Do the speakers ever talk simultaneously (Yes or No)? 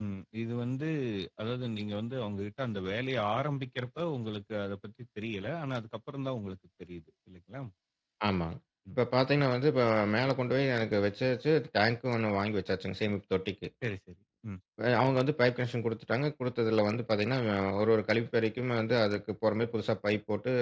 No